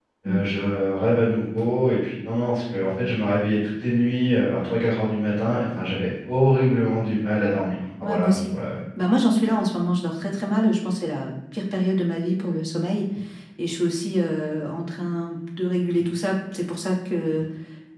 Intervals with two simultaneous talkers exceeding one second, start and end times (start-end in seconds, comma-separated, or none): none